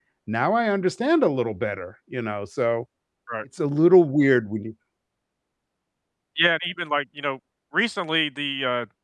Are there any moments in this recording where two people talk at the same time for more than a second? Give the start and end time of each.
none

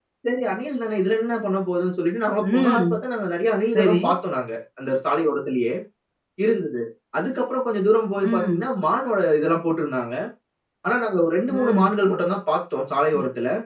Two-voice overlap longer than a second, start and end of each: none

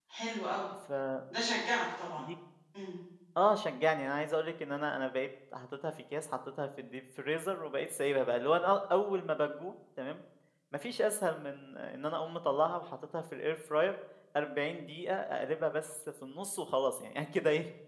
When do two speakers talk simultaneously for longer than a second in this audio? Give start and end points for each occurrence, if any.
none

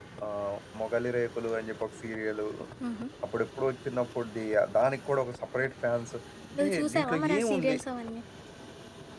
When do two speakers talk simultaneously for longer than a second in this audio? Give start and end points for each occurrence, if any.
6.5-7.8

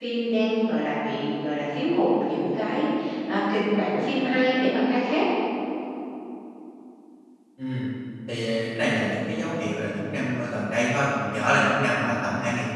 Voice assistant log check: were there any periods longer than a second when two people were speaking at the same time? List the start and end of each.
none

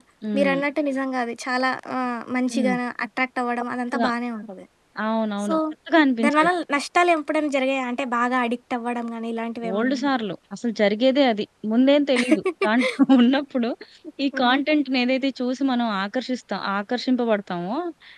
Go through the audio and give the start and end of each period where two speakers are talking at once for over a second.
none

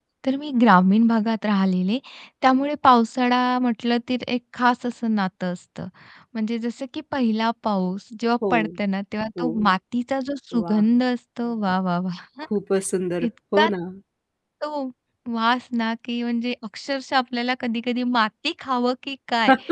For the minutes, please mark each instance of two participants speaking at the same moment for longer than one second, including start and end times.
none

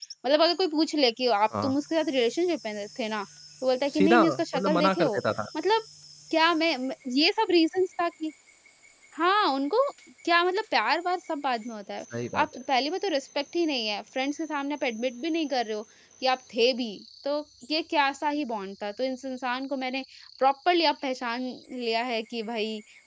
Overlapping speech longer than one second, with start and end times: 3.9-5.2

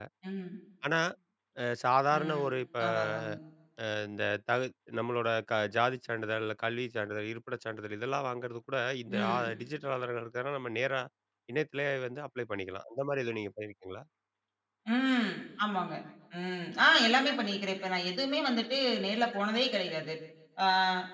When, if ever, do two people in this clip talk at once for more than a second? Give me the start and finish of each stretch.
none

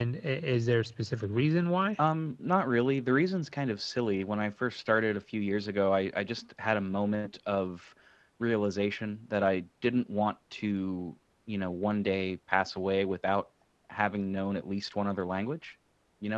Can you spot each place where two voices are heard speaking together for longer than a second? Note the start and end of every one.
none

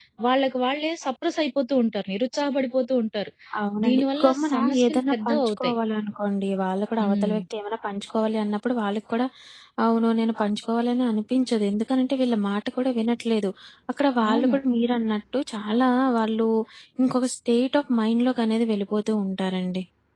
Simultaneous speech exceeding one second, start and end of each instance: 3.9-5.7

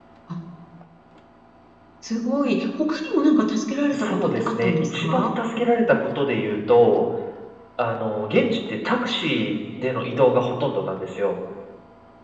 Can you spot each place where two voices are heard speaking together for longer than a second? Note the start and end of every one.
3.9-5.2

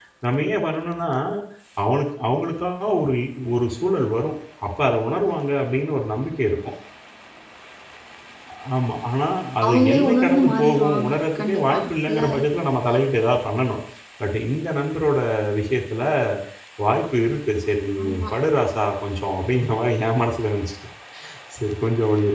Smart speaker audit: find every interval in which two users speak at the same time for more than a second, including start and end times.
9.7-12.2

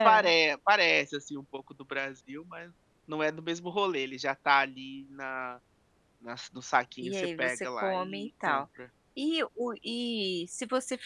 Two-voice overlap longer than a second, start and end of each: 7.0-8.6

